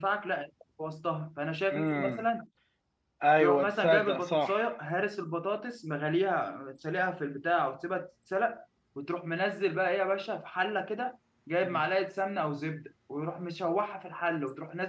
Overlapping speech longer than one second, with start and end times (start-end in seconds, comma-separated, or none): 3.4-4.6